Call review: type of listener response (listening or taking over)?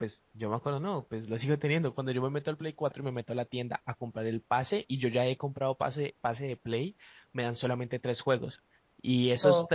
listening